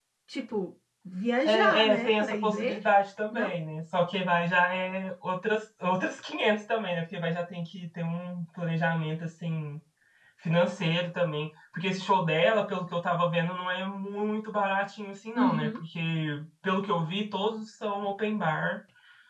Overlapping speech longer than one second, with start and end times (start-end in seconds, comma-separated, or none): 1.4-2.8